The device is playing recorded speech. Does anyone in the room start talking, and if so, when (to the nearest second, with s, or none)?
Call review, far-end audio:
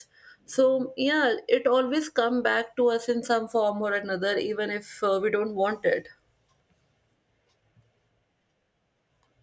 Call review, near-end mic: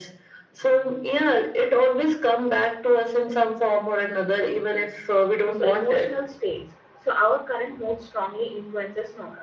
5 s